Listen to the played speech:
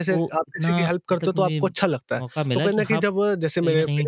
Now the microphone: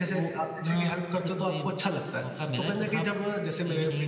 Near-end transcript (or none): none